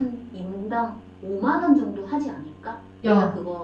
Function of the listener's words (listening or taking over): taking over